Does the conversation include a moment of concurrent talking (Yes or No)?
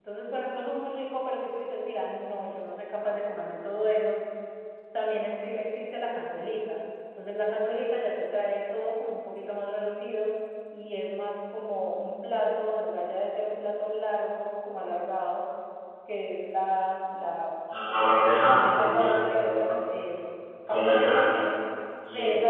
Yes